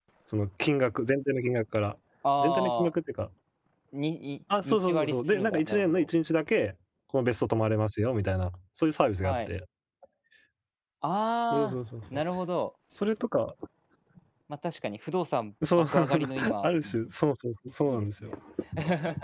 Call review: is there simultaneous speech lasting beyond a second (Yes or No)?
Yes